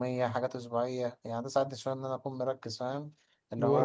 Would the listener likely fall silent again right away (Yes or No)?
Yes